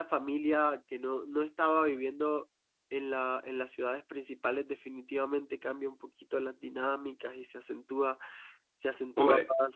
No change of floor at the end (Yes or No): Yes